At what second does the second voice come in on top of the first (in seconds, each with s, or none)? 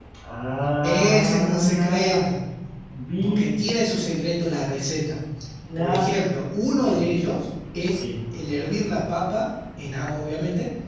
0.8 s